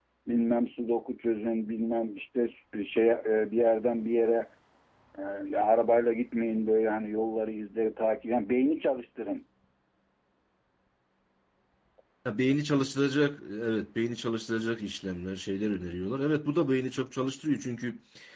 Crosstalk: none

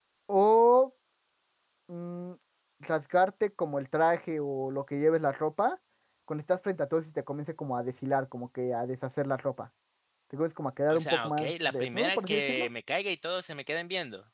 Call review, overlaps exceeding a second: present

